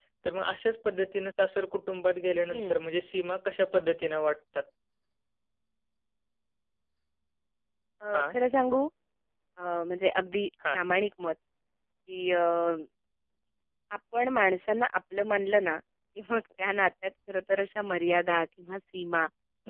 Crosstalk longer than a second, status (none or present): none